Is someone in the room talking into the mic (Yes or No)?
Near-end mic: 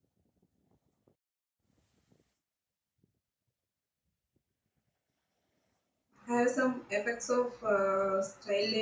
Yes